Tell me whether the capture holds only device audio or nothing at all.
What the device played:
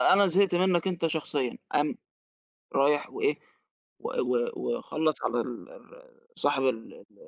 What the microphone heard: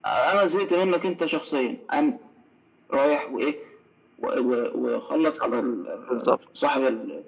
No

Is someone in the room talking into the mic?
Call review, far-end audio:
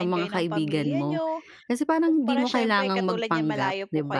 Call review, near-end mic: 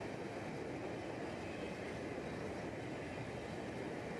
No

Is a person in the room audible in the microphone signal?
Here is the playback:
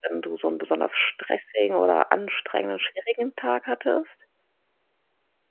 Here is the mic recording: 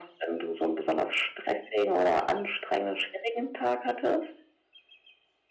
No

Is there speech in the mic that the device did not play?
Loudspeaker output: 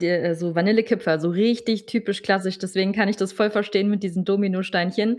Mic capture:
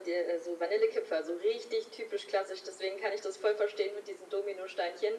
No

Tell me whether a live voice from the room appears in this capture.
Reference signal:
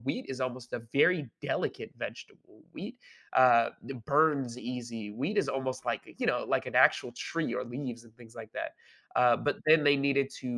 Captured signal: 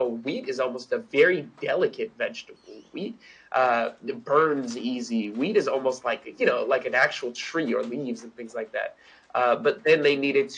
No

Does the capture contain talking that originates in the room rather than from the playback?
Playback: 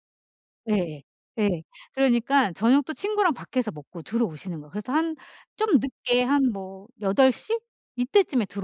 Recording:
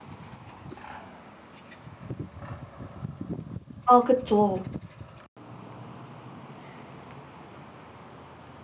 Yes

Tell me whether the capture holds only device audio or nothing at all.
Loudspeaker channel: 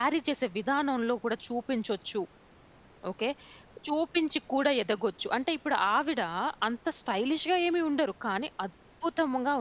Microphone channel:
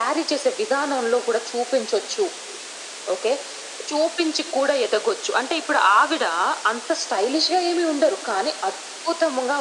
Yes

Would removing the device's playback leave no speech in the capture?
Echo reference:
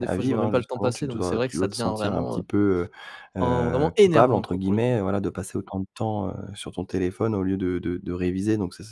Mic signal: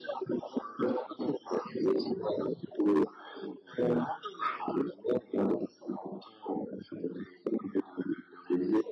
Yes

